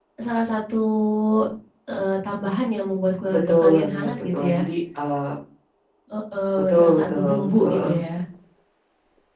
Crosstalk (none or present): present